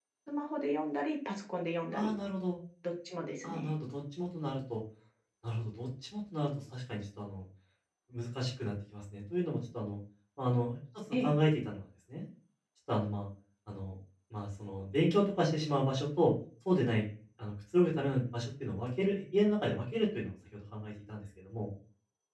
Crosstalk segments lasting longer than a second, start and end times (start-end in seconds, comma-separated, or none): none